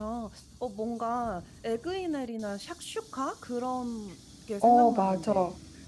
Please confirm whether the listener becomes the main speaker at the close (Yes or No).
Yes